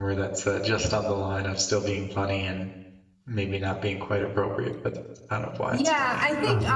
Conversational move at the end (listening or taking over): taking over